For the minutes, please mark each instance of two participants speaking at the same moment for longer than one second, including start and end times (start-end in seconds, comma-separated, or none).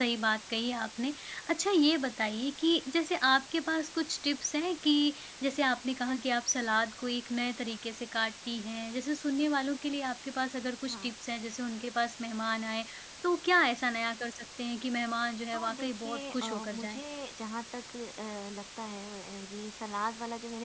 15.5-17.0